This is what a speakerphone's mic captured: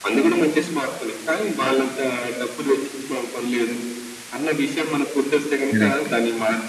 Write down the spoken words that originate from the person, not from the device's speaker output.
కరెక్ట్.

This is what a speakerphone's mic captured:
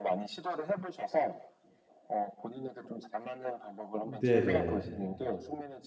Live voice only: 네네.

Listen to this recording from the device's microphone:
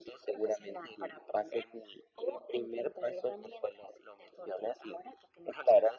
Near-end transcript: none

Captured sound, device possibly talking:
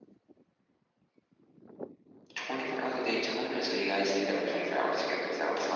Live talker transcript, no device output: none

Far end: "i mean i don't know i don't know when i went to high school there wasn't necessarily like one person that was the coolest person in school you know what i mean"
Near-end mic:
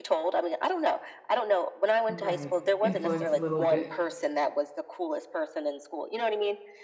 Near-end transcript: Right. Influence a little bit.

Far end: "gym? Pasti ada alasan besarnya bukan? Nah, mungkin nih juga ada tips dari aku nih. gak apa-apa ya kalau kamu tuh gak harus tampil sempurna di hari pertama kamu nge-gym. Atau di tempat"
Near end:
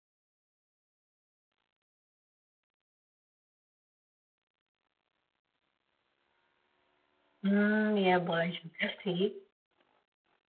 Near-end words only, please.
Mmm, iya boleh juga sih.

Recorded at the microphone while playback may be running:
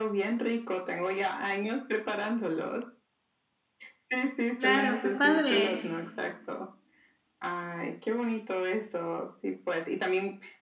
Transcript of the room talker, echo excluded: Claro, qué padre.

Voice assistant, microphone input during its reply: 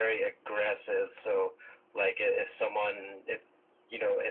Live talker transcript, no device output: none

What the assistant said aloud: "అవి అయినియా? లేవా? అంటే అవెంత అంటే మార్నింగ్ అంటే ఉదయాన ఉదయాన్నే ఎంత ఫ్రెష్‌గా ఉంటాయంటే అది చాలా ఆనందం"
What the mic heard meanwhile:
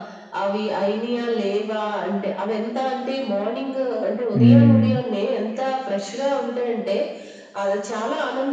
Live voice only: హ్మ్.

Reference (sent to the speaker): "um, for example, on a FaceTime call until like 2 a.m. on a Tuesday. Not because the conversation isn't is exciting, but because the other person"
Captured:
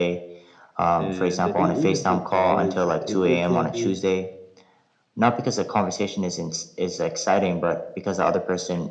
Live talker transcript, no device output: and then e- even through college it, it can be

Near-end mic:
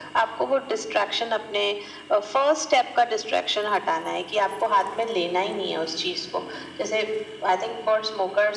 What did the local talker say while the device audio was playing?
none

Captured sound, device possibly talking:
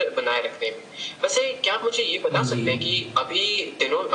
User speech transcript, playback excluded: हुँ। जी, जी।

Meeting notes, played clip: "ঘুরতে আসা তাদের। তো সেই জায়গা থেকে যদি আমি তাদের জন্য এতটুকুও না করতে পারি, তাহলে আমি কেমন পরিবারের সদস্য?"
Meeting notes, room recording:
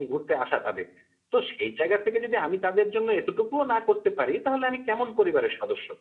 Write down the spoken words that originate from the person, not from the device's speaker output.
none

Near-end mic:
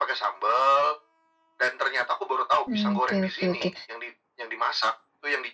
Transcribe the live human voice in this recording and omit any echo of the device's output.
Mmm, oke oke oke.

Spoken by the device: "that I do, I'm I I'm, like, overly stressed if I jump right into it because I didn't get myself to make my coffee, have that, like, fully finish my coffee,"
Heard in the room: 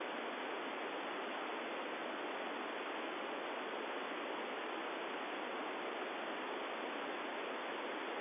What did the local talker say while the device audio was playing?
none

